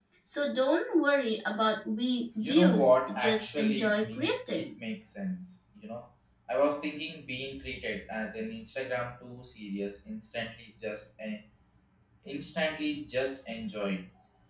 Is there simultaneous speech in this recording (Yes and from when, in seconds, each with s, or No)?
Yes, from 2.4 s